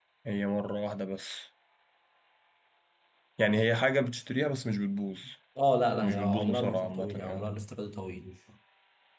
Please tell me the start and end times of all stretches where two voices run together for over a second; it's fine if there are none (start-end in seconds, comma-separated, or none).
6.0-7.5